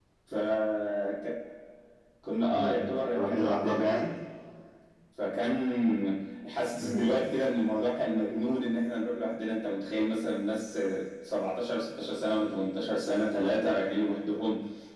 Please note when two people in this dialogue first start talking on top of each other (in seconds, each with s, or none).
2.5 s